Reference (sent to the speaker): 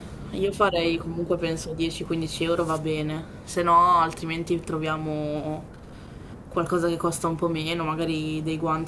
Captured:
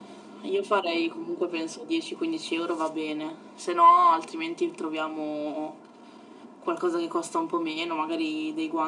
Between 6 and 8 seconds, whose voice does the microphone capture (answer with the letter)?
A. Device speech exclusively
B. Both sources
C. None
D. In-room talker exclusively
A